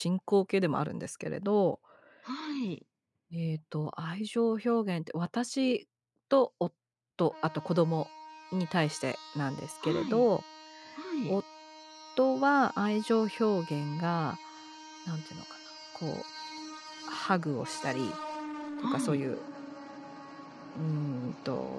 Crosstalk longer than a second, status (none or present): none